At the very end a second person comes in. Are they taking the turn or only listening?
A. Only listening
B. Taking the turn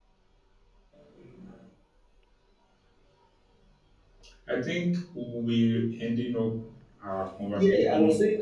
B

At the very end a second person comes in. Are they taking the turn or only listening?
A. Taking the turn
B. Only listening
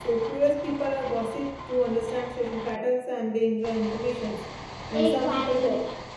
A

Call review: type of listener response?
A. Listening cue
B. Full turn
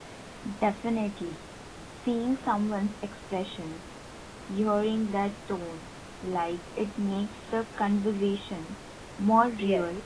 B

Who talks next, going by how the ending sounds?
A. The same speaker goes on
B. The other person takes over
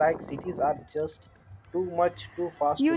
B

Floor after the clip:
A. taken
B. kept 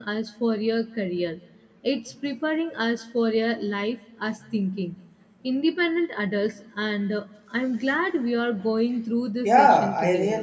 A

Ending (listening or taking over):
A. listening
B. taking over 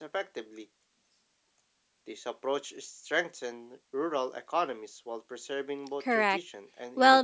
B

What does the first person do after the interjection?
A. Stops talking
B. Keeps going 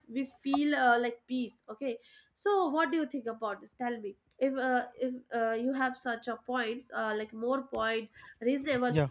B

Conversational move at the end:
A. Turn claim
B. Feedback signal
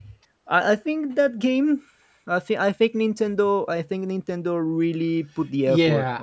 A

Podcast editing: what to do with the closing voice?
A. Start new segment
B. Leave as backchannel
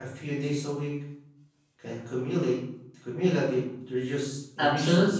A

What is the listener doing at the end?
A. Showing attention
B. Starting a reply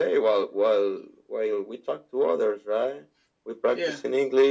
A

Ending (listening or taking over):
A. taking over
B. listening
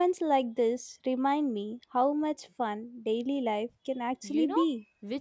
A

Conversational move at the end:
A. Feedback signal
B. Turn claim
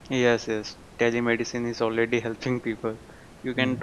A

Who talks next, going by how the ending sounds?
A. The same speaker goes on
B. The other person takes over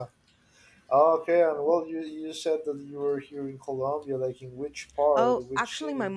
B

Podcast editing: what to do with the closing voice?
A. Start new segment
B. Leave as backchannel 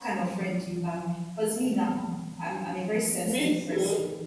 B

